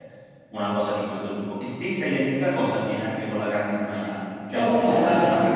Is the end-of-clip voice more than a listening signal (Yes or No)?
No